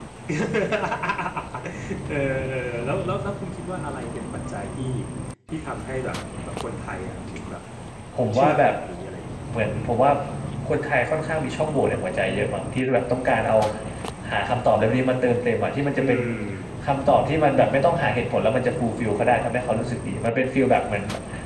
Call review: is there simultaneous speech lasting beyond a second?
No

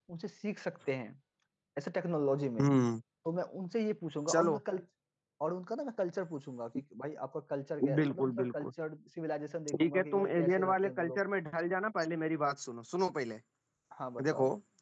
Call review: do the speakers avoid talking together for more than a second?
No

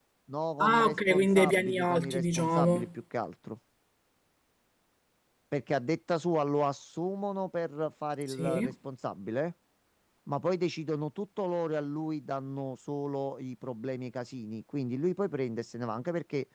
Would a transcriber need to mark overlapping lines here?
Yes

